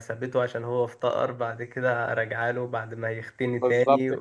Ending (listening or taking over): taking over